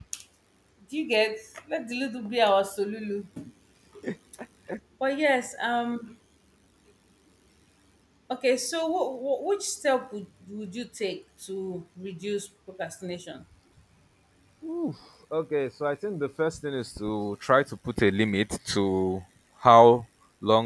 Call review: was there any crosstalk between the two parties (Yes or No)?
No